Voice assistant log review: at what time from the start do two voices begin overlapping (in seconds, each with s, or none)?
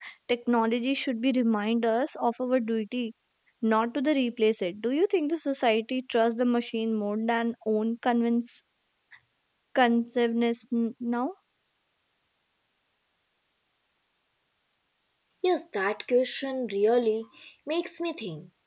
none